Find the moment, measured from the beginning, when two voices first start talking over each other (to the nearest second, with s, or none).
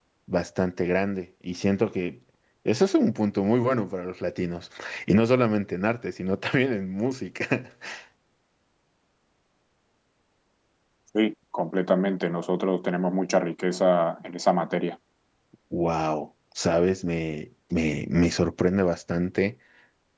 none